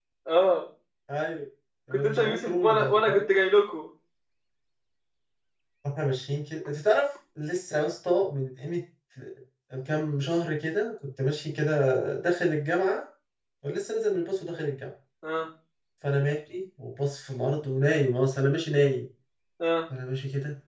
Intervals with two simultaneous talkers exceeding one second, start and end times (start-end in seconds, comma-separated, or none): 1.9-3.2